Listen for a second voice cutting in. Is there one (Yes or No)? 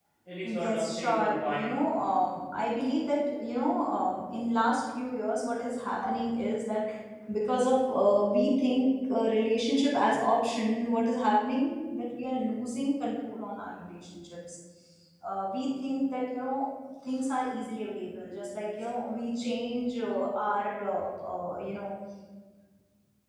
Yes